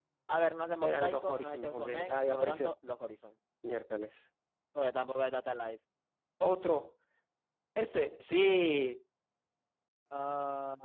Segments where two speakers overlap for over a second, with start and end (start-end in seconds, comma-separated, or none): 0.8-2.7